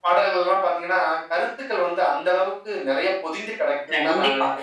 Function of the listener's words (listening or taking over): taking over